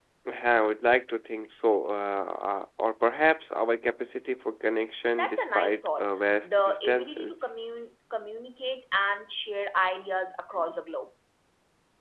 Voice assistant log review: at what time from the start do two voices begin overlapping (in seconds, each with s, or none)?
5.2 s